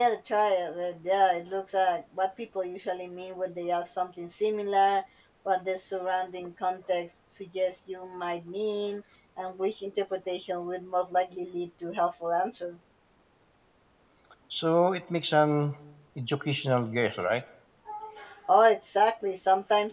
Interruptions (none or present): none